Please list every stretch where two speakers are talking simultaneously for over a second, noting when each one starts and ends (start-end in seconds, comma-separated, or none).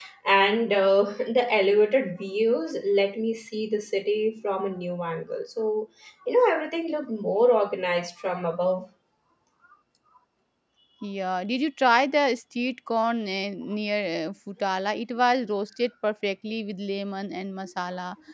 none